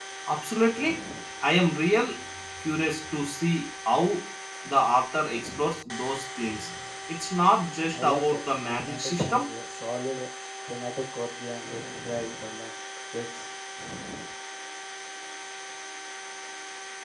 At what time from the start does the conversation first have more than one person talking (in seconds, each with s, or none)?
7.9 s